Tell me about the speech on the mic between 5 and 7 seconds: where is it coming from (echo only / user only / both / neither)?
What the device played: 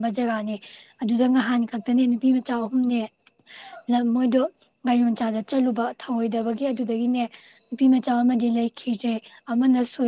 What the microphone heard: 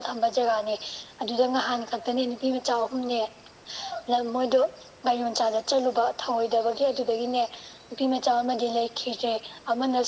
echo only